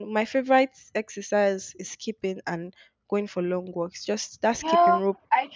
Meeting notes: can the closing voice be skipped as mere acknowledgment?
No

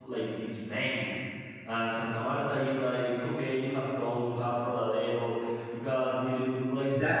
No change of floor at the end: No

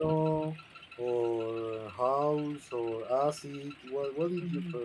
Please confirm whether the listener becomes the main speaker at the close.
Yes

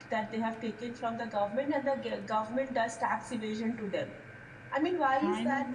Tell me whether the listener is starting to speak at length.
No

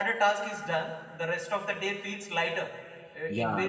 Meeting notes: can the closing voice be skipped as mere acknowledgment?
Yes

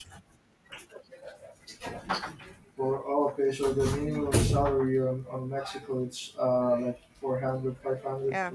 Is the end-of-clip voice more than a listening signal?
Yes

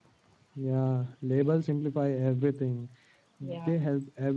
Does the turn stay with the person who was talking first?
Yes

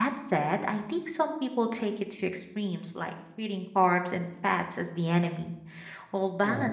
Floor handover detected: No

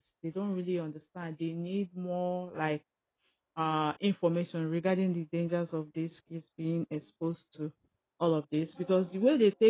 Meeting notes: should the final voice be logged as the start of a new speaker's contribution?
No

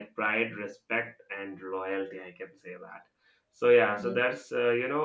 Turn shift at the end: No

